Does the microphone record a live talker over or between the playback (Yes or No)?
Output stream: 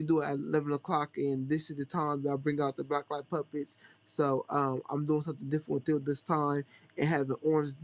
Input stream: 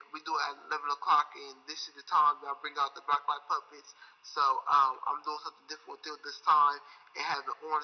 No